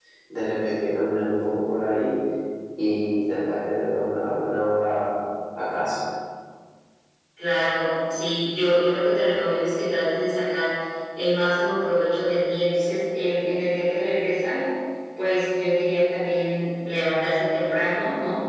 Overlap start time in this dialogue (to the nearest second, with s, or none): none